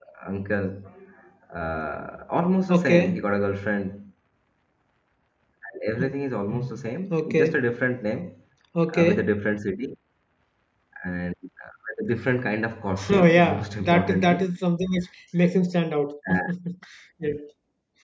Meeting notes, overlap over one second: present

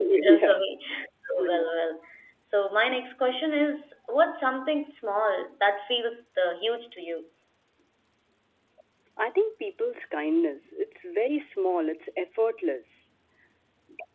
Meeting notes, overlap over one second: none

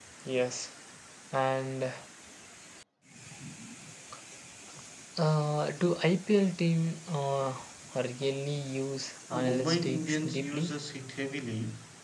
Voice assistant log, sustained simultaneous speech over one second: present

